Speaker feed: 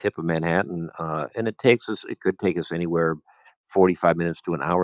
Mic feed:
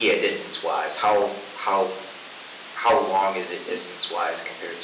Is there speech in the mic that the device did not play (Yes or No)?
Yes